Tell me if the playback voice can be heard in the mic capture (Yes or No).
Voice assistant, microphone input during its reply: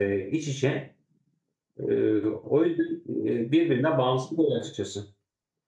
No